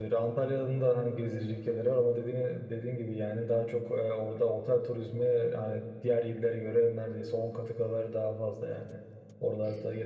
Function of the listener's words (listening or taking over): listening